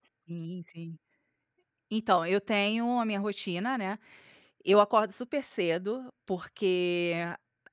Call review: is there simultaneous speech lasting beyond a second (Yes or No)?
No